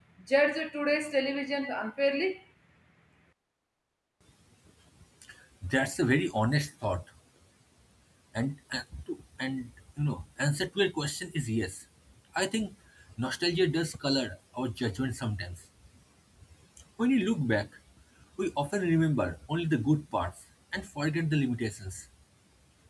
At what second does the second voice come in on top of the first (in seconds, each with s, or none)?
none